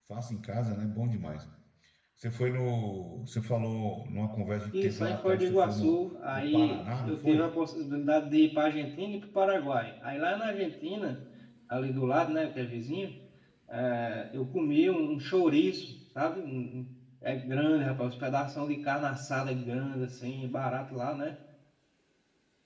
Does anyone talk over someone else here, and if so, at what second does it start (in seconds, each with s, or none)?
4.7 s